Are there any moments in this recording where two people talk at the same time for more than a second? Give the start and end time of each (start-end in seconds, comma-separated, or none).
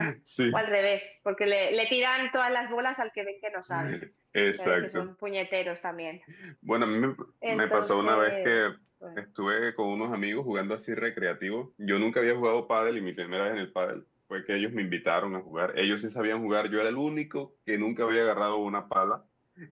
7.5-8.7